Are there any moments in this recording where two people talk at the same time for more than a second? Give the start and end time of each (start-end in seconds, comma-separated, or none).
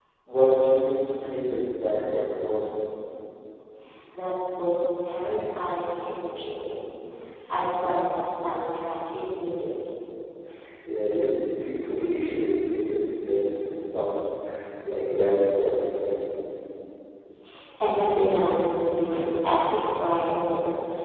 none